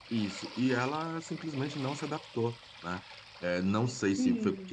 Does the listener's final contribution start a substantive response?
No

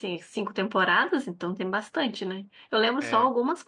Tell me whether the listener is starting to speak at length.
No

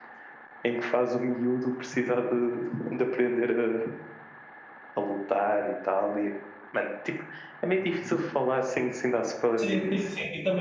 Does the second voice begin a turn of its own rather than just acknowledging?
Yes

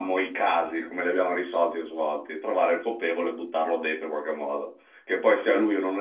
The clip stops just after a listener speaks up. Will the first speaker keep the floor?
Yes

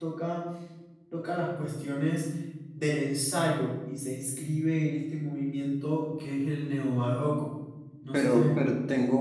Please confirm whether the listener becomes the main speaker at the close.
Yes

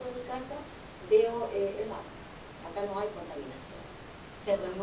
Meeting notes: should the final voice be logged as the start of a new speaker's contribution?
Yes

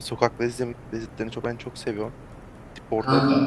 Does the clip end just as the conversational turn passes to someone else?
No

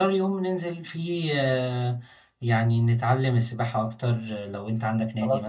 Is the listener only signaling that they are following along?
No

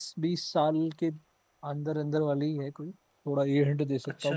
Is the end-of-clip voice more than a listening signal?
No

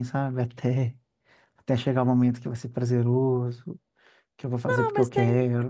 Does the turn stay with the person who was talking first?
No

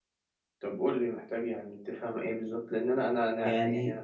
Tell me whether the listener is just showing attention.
Yes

